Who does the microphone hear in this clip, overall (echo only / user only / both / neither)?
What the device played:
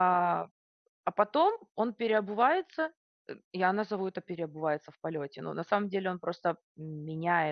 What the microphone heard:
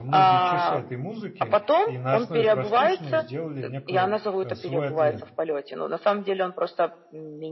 both